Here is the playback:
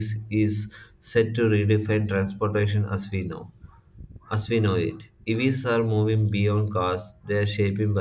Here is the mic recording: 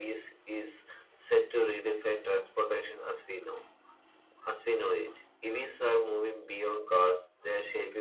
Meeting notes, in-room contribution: none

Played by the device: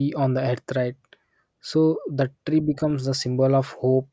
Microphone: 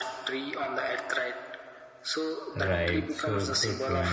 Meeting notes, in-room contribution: present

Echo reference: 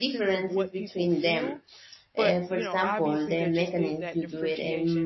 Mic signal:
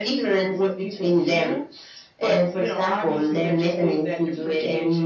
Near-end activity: none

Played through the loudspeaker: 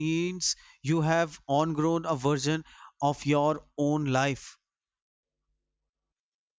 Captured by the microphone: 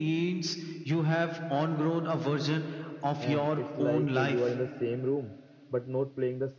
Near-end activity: present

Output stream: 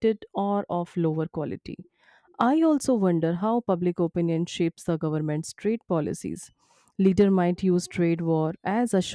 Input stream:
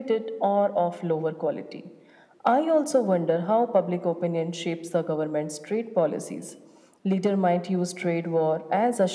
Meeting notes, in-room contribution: none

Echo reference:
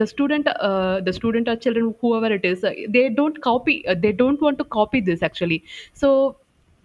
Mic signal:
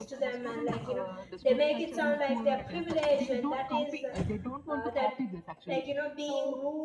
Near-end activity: present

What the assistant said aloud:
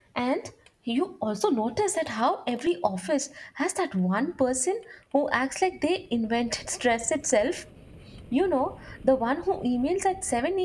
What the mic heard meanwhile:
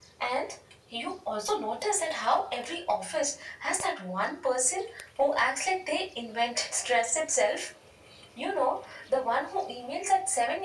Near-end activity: none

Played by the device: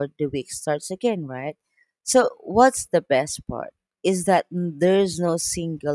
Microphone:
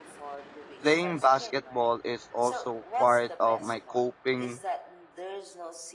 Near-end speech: present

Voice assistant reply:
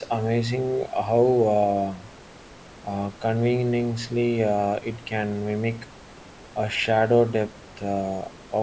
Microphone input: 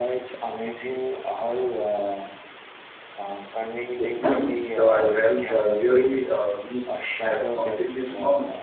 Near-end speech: present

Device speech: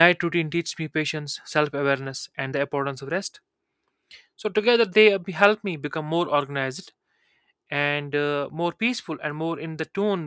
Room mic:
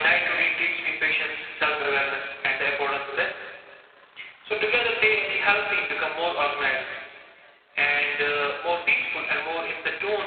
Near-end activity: none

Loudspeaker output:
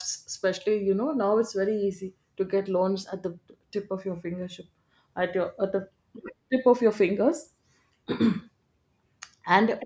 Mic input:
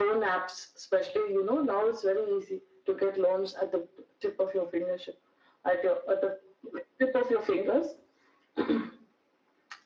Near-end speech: none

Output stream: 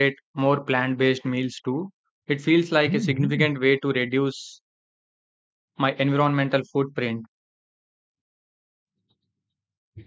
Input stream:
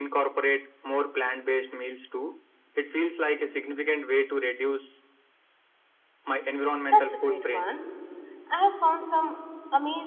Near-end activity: present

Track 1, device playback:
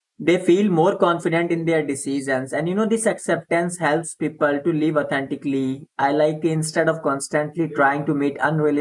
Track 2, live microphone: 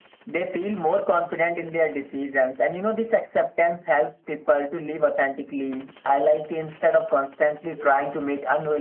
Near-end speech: none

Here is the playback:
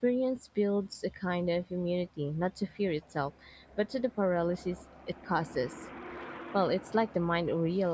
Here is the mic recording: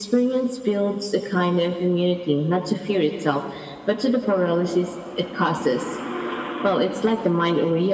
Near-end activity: none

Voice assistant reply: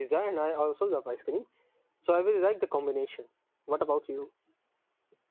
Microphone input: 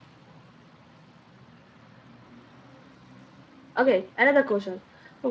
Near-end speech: present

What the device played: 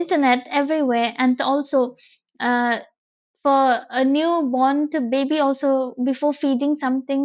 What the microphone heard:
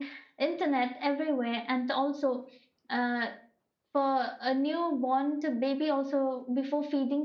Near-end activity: none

